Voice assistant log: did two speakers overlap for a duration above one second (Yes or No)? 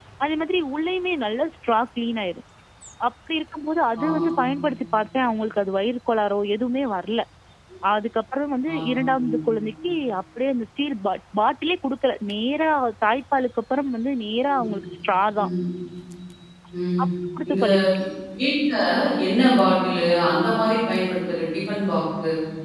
No